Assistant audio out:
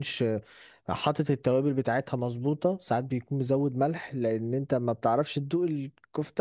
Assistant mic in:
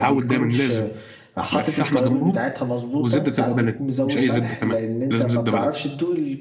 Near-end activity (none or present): present